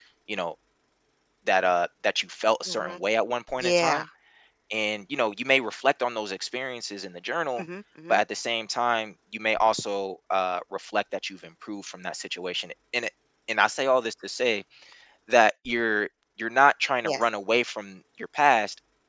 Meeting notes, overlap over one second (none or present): none